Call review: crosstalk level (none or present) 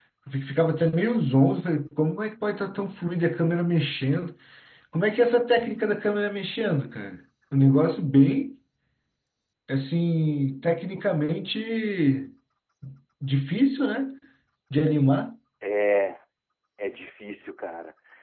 none